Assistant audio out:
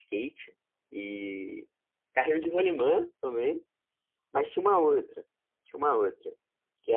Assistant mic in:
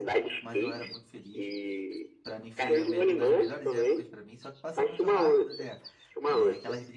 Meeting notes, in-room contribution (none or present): present